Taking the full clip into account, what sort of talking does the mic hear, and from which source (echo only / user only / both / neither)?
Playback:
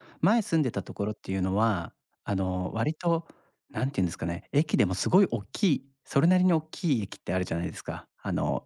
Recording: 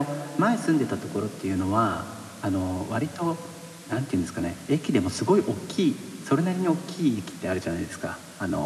echo only